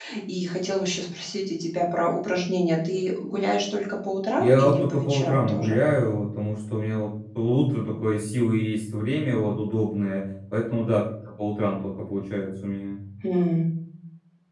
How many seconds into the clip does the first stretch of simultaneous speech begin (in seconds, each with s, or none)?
4.4 s